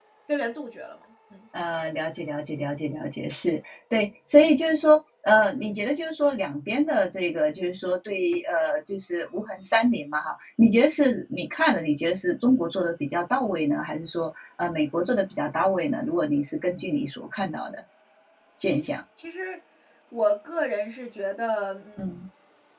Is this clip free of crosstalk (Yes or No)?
Yes